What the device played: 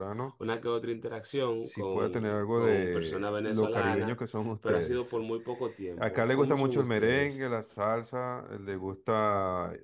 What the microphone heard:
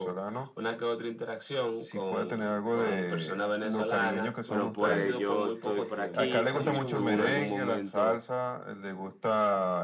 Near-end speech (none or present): present